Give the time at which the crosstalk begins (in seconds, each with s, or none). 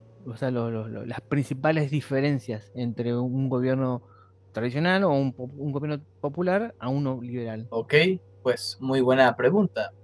none